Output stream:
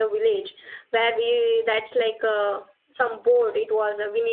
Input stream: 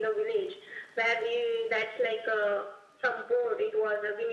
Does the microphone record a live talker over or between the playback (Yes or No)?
No